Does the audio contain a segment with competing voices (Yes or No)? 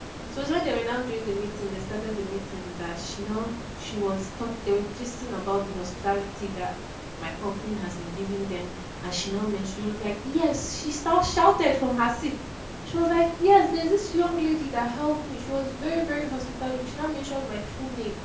No